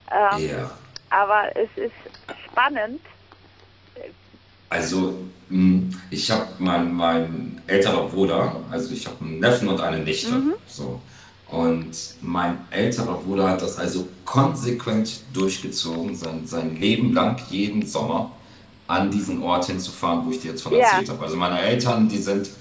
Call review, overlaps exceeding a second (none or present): none